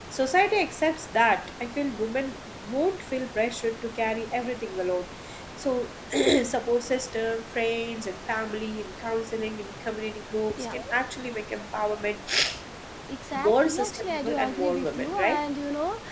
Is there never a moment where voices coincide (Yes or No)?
No